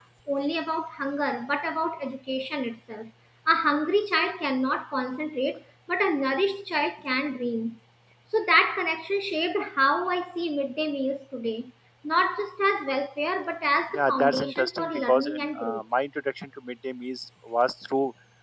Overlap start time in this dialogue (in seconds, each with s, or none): 13.9 s